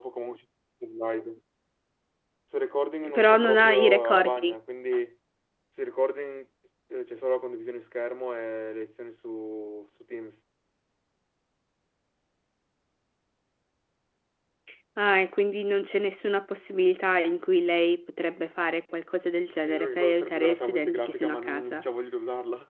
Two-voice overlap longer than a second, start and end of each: 3.2-4.5, 19.6-21.9

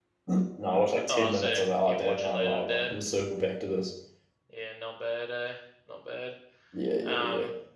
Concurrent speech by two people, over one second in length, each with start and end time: 1.1-3.0

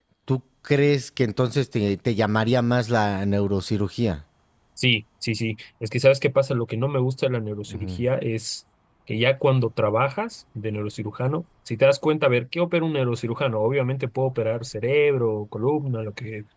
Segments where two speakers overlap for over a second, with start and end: none

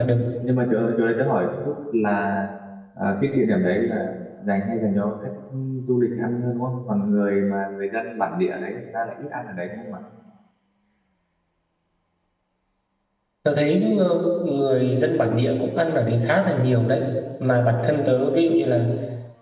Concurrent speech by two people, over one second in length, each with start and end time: none

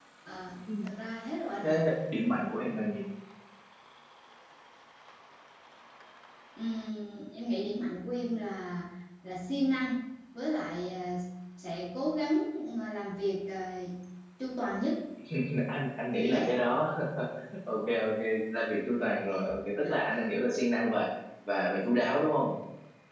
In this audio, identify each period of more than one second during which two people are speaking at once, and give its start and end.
none

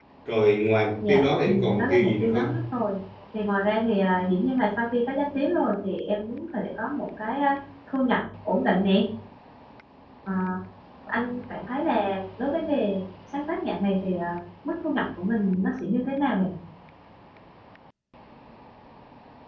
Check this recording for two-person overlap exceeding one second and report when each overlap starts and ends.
1.1-2.5

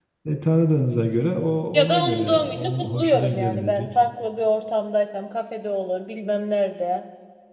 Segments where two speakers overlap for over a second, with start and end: 1.7-3.9

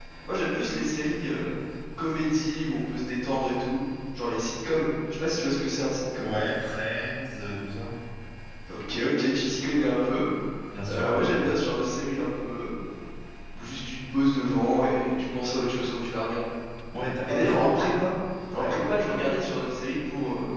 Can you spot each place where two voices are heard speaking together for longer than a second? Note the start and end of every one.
none

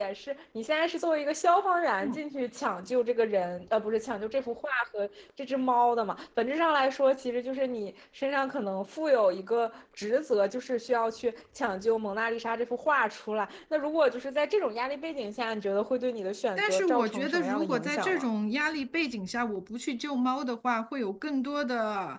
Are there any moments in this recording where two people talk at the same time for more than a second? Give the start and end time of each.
16.6-18.3

